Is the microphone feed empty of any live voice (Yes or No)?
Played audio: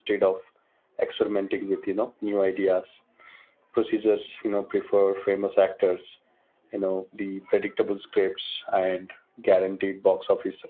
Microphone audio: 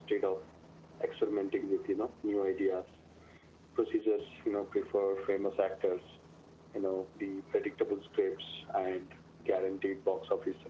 Yes